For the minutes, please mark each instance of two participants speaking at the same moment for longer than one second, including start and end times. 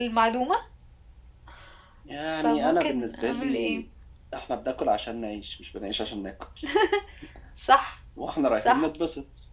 2.4-3.8

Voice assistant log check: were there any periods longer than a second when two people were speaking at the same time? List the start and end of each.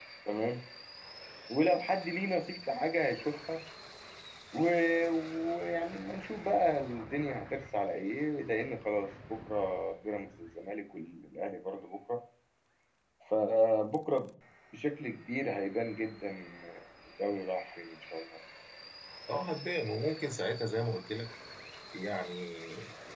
none

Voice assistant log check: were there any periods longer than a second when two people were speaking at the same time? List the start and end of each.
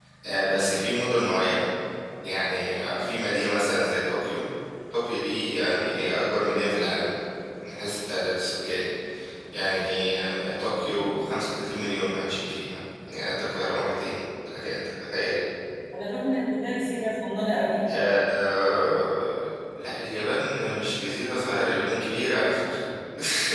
none

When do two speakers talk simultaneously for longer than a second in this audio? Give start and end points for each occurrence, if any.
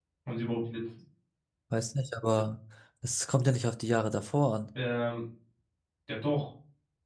none

